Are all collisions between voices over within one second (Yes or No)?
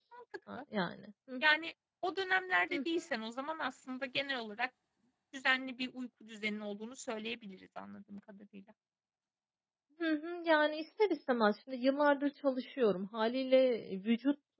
Yes